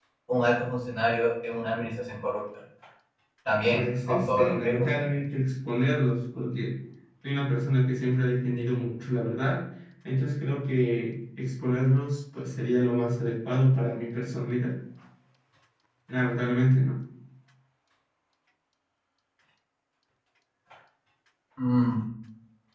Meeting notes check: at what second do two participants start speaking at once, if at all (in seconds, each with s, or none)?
3.7 s